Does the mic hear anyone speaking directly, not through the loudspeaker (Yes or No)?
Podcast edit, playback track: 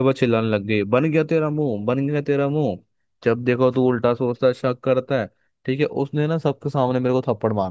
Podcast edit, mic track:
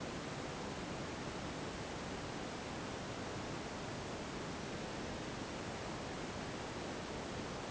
No